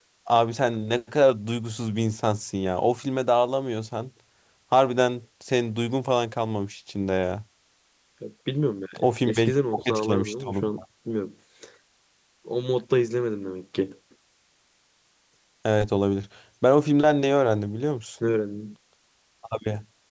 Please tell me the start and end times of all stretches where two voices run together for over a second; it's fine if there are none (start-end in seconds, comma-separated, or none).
9.3-10.7